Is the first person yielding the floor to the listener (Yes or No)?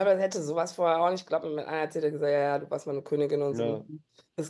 No